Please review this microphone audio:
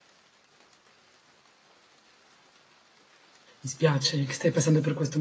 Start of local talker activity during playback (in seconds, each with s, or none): 3.6 s